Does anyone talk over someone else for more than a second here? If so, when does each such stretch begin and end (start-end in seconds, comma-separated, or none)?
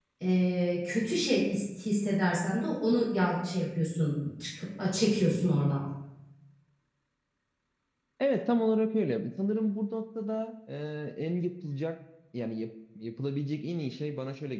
none